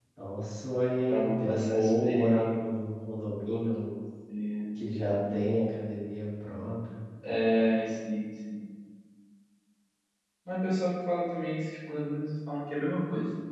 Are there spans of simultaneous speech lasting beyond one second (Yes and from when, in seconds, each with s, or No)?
Yes, from 1.1 s